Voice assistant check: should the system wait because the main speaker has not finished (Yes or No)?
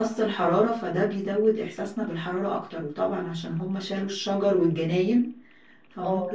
Yes